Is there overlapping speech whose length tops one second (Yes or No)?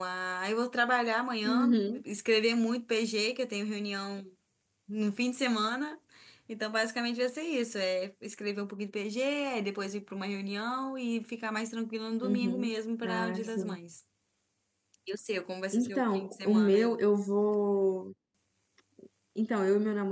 Yes